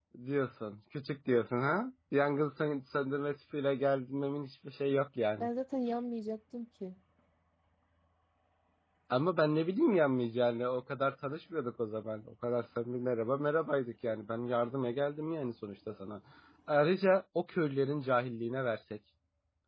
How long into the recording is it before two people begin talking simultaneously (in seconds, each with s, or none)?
none